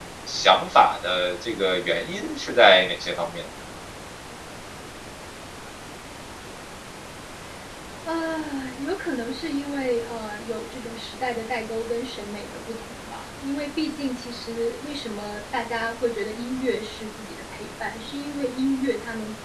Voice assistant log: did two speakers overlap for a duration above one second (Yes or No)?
No